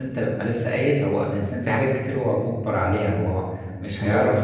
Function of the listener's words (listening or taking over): listening